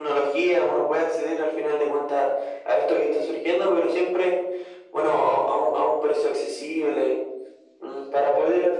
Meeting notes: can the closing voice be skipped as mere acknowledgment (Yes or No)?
Yes